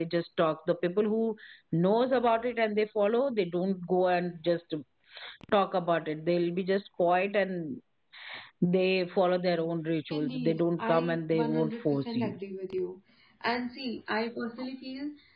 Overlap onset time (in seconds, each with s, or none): 10.1 s